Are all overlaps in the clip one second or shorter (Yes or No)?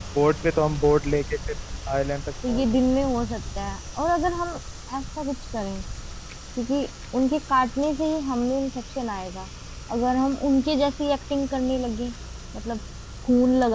Yes